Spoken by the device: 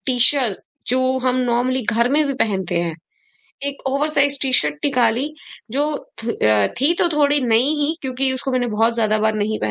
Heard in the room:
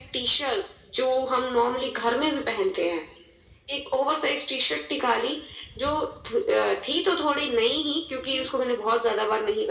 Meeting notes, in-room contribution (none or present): present